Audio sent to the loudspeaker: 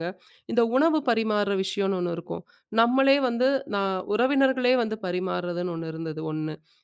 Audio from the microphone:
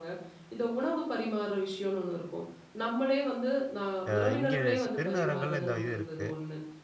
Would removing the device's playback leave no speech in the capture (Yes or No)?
No